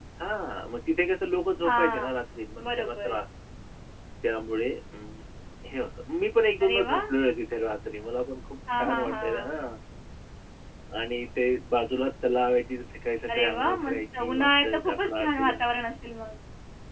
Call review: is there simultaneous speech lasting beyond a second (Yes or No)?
Yes